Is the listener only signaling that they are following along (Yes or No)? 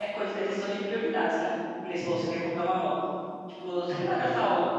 Yes